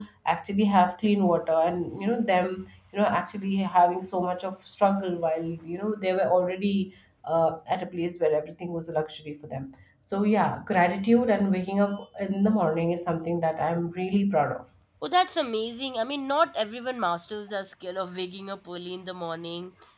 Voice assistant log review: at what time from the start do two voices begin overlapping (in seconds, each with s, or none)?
none